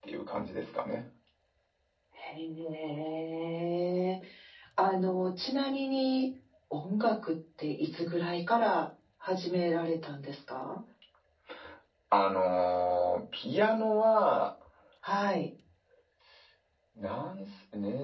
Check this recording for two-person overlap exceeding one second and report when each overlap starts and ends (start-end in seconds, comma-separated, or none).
none